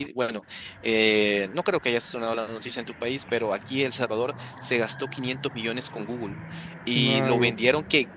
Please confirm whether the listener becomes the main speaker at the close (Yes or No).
No